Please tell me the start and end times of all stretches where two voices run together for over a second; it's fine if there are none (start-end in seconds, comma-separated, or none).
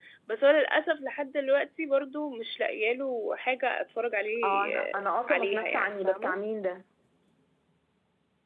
4.4-6.4